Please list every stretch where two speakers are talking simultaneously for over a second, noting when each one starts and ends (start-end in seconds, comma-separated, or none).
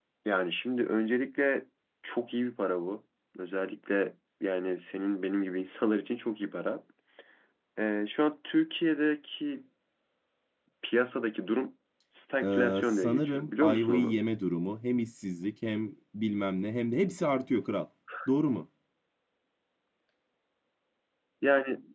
12.4-14.2